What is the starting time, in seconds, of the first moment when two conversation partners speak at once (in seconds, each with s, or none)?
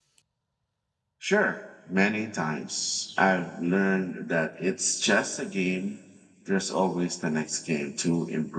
none